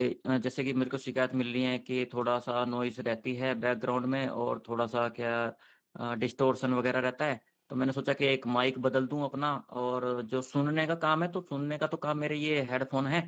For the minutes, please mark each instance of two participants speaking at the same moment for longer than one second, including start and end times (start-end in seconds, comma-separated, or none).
none